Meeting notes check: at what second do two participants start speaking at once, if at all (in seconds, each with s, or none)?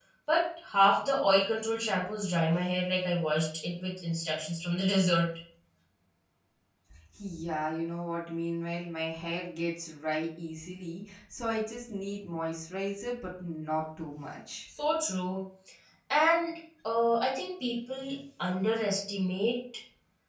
none